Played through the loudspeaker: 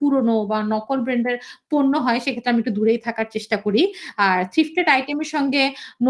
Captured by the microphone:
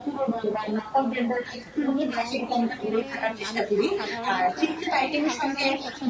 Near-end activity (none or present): present